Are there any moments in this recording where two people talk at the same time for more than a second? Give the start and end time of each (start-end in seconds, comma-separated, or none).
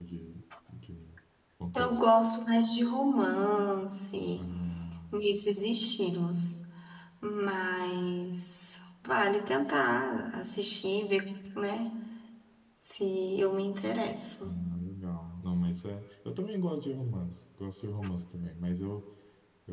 none